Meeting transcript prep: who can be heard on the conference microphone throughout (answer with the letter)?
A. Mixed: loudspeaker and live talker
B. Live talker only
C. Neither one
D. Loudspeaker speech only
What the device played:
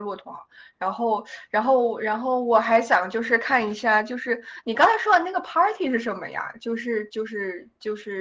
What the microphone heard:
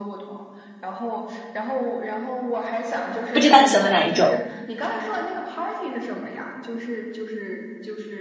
A